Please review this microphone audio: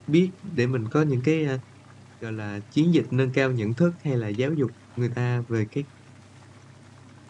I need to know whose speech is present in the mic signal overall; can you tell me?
user only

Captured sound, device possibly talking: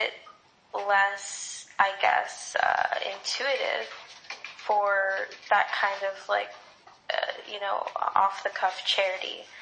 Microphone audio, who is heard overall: echo only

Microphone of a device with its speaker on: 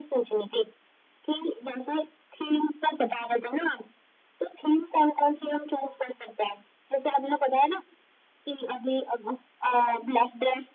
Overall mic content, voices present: echo only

